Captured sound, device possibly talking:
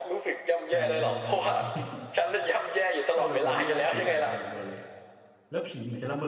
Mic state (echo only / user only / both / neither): both